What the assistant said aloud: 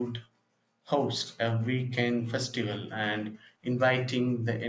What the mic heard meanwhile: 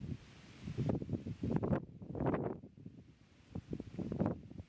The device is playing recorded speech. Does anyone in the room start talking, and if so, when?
none

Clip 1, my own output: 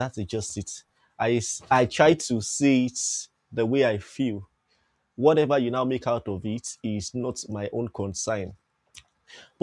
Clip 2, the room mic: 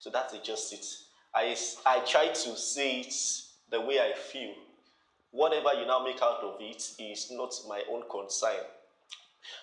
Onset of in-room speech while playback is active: none

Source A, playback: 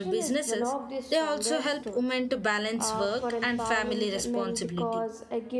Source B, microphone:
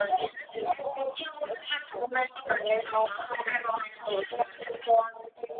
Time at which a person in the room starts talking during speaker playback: none

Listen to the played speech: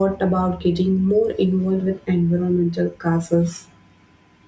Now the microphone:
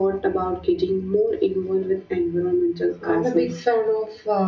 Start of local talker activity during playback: 3 s

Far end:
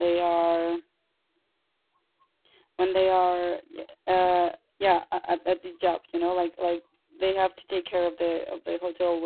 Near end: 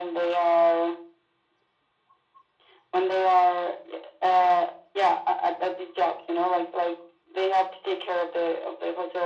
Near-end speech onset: none

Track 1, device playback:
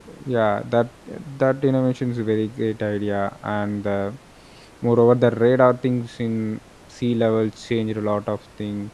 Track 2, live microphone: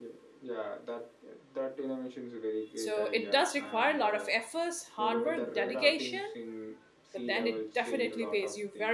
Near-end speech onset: 3 s

